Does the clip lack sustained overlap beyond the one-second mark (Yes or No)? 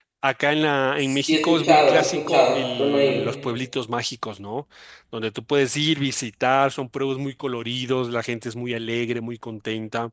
No